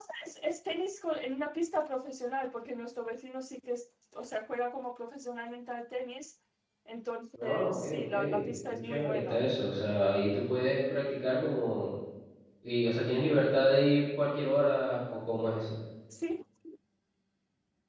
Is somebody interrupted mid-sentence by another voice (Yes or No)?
Yes